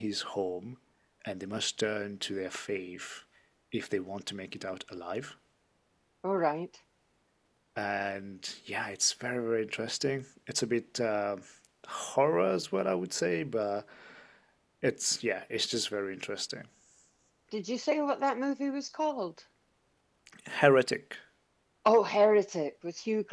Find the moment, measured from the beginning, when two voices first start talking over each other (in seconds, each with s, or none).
none